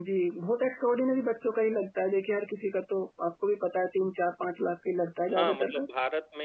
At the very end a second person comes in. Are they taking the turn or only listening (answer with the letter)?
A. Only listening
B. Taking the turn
B